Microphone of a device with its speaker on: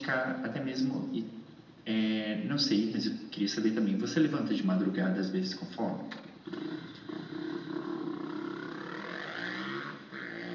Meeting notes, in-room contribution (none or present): none